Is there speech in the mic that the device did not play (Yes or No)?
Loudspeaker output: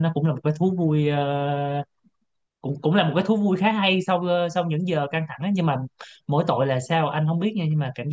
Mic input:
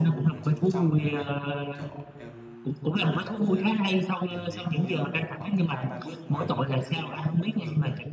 Yes